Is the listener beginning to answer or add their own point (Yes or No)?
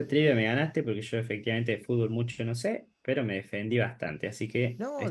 Yes